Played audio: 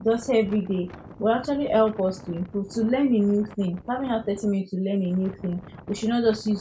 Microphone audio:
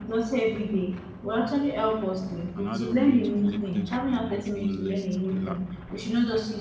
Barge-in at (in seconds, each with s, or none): 2.5 s